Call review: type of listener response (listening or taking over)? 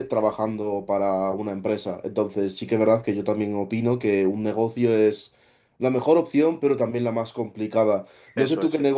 listening